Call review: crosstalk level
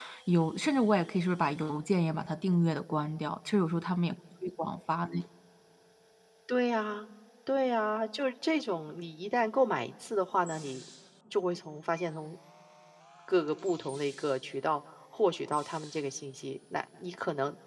none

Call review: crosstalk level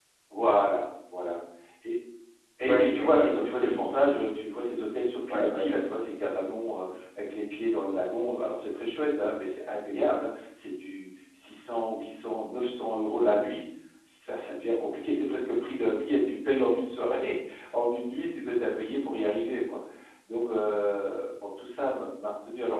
present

